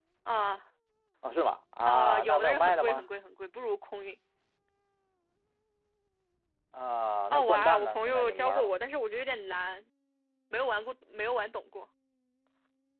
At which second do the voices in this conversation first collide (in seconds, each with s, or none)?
1.9 s